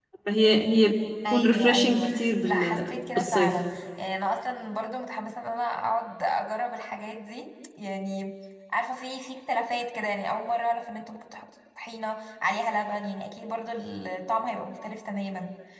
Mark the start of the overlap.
1 s

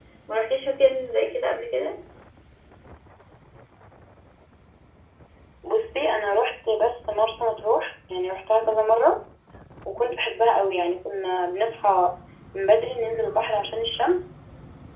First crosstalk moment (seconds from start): none

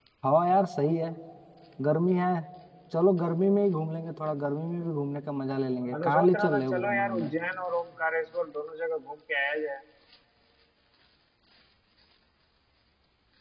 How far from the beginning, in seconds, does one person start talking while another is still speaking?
6 s

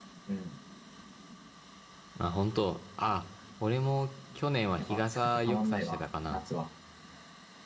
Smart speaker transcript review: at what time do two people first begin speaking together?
5 s

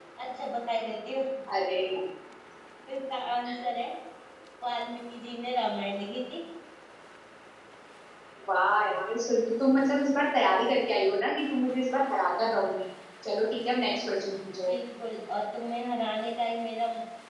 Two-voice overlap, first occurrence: none

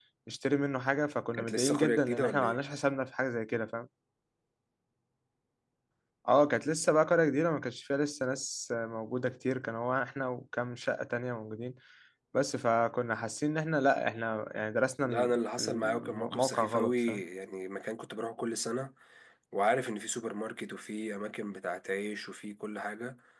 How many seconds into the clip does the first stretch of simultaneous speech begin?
1 s

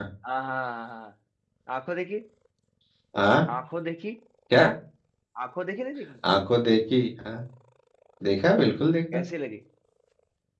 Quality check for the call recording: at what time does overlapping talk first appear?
none

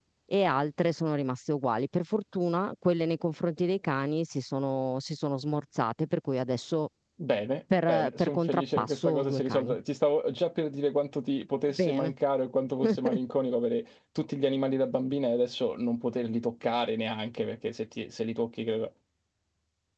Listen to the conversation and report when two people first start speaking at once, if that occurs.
8 s

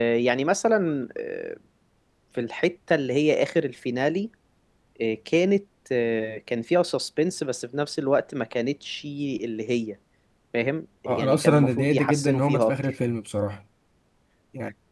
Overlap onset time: 11 s

